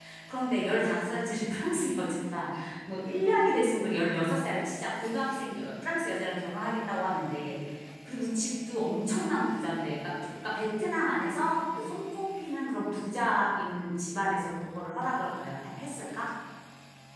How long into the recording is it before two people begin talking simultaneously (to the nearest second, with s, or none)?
none